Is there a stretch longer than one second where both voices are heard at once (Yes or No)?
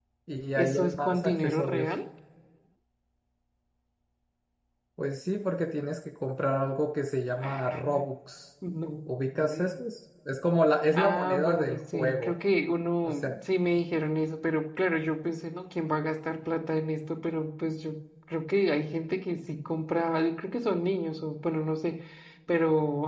Yes